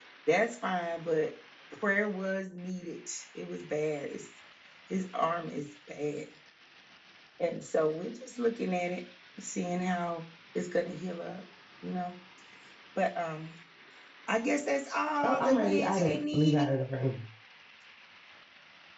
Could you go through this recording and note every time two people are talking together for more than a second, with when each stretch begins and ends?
15.2-16.6

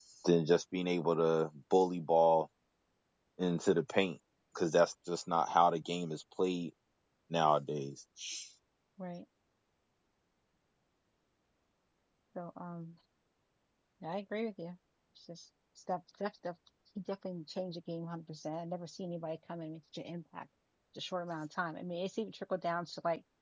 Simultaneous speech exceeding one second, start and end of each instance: none

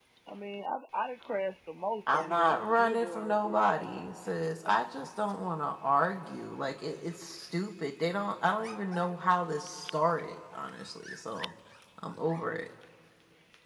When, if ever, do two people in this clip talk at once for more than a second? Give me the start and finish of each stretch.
2.1-4.3

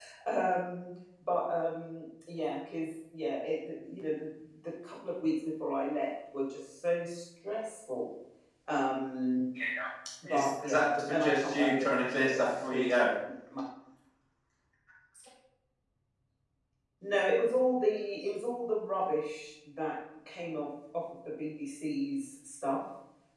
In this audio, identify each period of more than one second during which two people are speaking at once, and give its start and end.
10.2-12.9

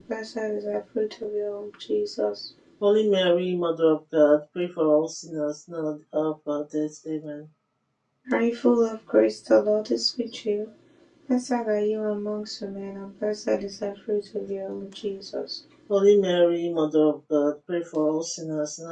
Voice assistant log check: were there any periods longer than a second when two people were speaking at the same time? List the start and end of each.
none

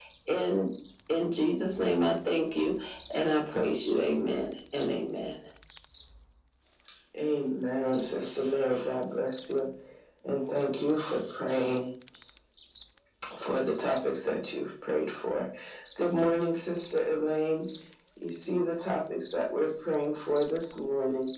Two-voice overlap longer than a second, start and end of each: none

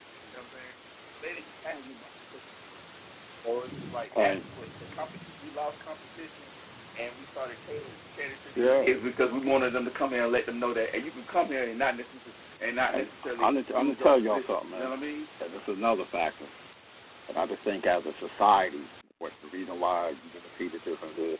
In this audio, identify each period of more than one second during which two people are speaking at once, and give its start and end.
12.9-14.9

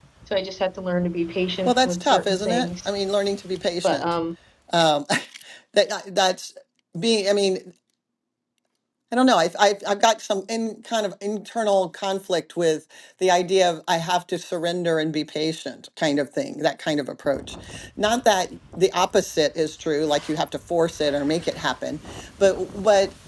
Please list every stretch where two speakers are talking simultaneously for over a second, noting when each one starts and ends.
1.6-2.9

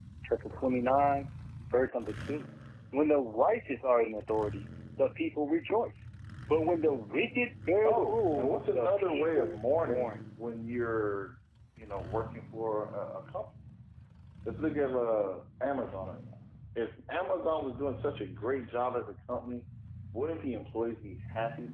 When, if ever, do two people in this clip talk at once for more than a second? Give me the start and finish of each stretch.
7.8-10.2

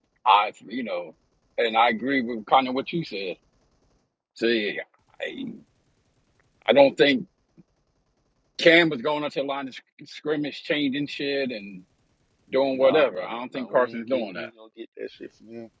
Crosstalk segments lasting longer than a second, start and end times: 12.7-14.5

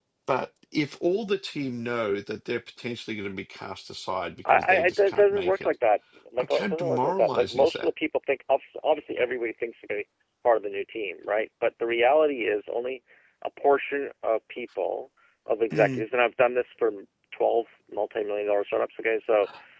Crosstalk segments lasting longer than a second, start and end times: 4.5-5.7, 6.4-7.9

